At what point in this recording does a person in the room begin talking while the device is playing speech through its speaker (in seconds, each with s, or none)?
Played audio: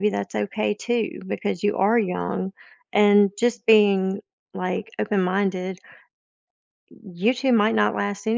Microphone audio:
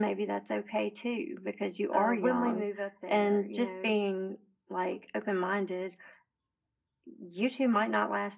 1.9 s